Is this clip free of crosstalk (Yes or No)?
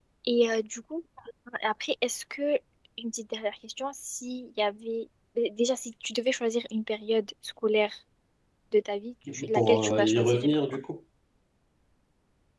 No